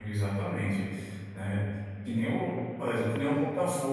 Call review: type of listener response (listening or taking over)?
listening